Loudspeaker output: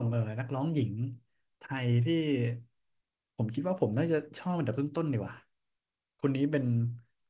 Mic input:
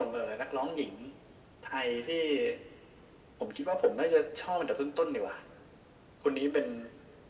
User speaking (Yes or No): No